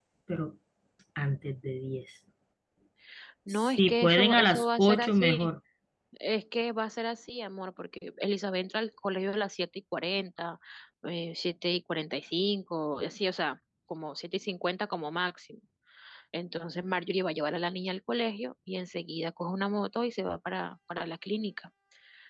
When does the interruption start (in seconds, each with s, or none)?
3.5 s